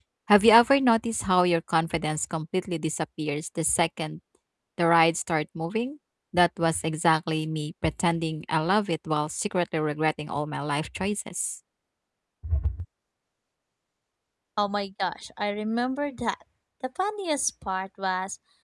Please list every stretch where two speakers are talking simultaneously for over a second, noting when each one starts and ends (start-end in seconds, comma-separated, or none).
none